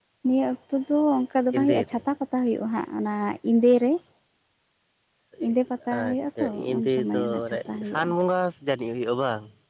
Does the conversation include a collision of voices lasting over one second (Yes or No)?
Yes